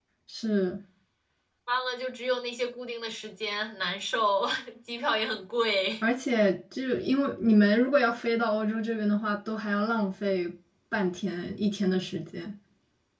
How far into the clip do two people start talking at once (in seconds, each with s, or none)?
none